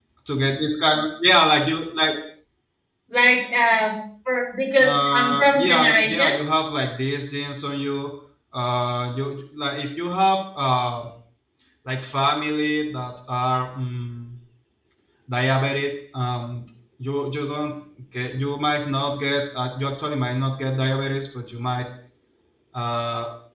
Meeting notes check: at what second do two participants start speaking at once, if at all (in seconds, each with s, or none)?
4.8 s